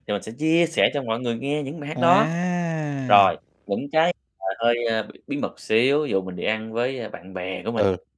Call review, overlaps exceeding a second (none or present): none